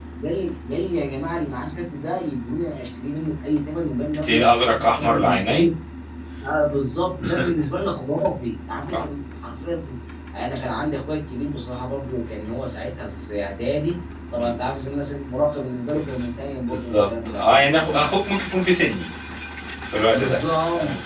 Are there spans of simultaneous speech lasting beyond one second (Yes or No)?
Yes